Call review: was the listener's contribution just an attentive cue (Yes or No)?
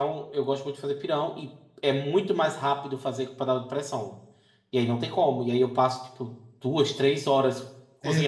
No